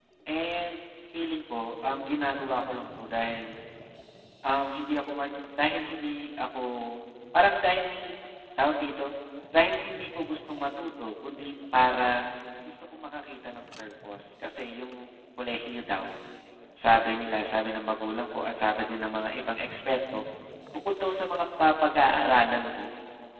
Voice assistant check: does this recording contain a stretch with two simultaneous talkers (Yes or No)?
No